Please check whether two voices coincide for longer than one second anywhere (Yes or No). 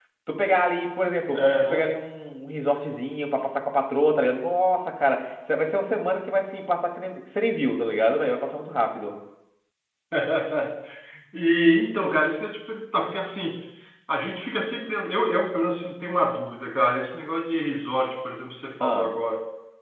No